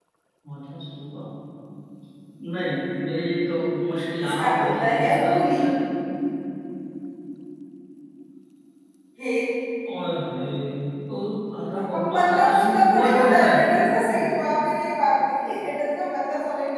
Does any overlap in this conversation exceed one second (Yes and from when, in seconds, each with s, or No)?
Yes, from 4.2 s